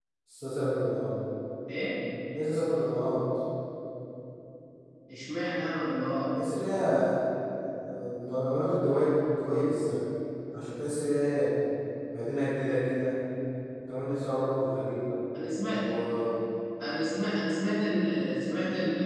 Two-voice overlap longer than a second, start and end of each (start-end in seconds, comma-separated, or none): none